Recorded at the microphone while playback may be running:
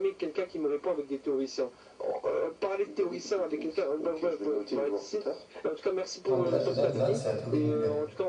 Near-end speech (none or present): present